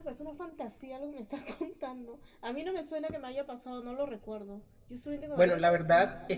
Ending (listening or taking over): taking over